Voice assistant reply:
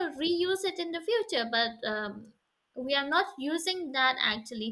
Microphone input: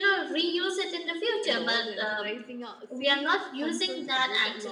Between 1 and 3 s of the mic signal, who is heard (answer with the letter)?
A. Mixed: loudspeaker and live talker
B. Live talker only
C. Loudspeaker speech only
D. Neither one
A